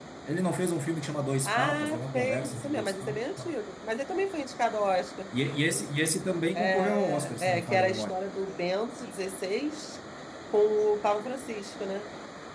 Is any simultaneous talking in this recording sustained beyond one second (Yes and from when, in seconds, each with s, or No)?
Yes, from 1.4 s